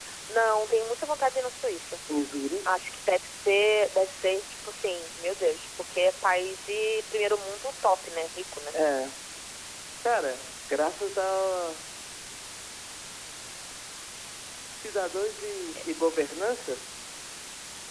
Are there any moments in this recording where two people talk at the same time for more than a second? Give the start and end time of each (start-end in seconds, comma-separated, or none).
none